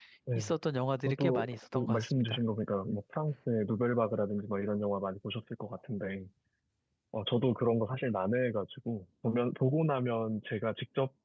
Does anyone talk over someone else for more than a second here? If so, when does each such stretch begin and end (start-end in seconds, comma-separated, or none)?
1.1-2.4